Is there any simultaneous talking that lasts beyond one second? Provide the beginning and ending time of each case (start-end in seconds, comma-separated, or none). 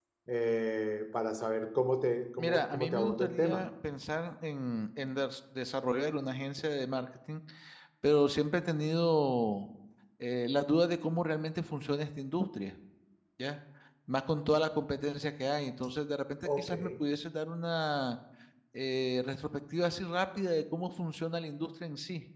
2.4-3.6